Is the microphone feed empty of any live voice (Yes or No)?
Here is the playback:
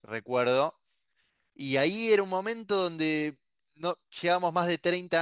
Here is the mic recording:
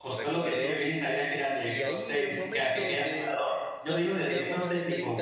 No